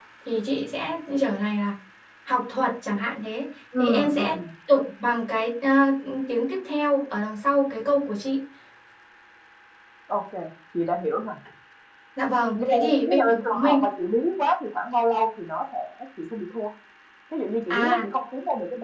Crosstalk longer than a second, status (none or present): present